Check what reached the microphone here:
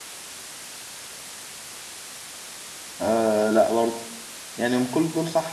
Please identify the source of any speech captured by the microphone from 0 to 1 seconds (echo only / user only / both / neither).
neither